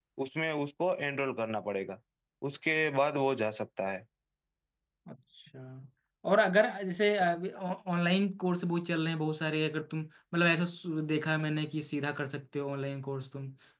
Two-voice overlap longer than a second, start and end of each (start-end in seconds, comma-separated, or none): none